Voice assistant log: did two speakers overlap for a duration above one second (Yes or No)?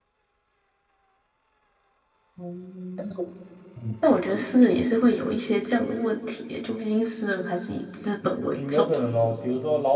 No